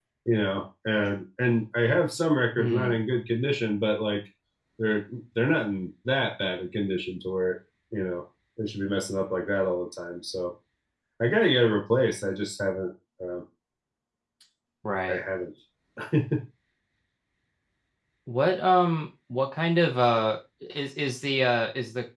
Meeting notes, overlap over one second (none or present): none